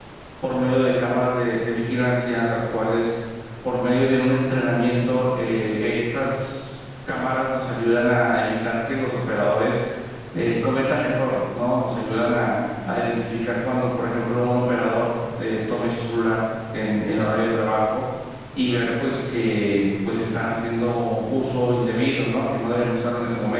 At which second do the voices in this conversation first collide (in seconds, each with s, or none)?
none